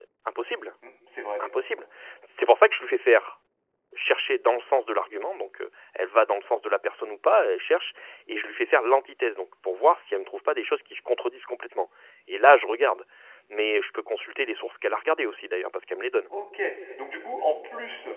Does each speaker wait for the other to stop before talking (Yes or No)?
Yes